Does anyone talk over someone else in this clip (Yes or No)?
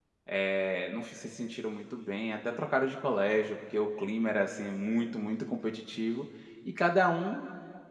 No